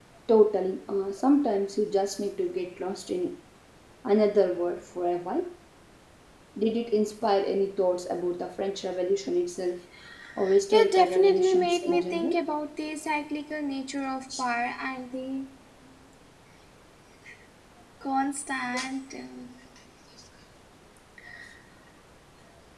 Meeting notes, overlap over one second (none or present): present